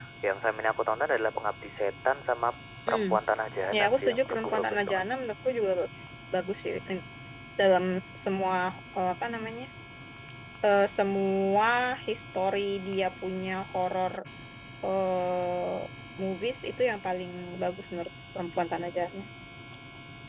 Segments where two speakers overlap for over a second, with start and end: 3.8-5.0

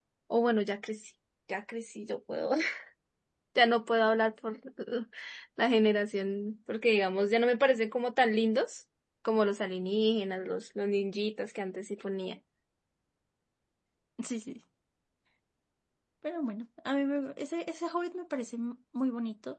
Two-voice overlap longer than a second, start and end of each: none

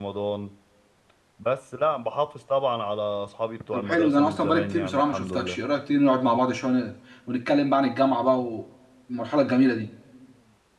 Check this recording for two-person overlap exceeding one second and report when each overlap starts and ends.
3.7-5.6

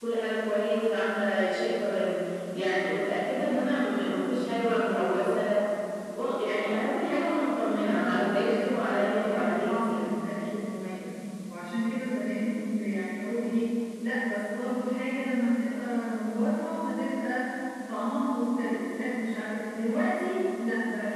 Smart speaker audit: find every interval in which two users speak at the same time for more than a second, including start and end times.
7.8-10.1

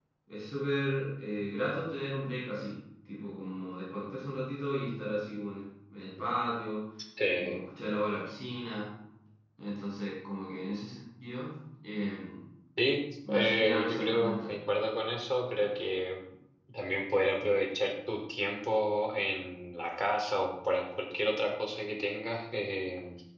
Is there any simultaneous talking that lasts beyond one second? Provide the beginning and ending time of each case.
13.3-14.5

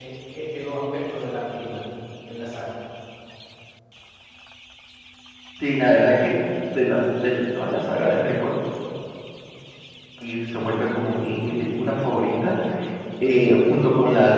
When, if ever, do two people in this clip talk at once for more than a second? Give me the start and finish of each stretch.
none

